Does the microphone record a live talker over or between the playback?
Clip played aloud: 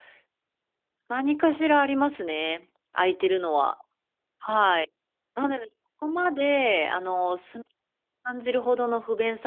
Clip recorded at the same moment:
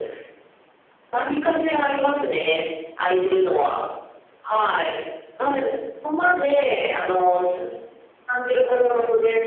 No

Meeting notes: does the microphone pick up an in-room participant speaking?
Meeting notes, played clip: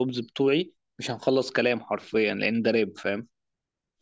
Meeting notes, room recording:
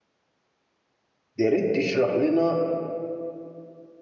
Yes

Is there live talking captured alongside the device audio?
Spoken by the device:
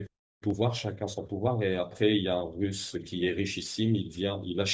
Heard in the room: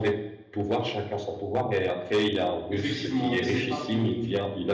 Yes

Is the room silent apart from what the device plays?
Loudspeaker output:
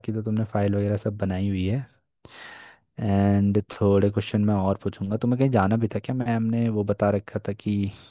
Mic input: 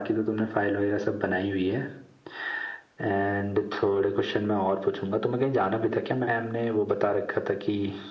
Yes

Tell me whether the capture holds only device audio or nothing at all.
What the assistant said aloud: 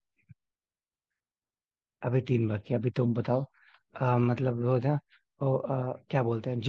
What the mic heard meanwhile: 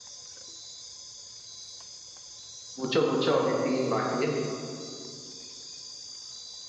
No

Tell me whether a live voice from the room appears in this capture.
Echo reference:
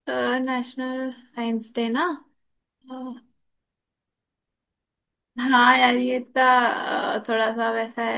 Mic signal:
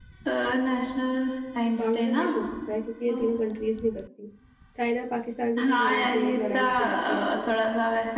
Yes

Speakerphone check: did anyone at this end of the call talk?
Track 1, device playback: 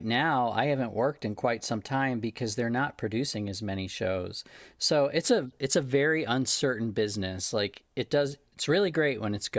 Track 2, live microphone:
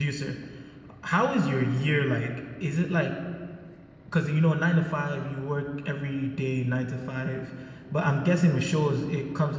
Yes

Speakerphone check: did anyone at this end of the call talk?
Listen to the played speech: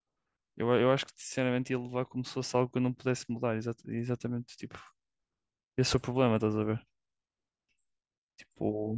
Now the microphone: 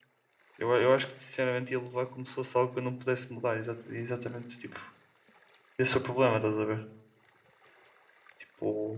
No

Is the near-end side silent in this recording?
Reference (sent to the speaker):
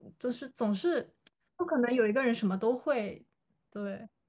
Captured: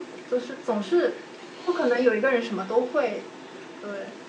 Yes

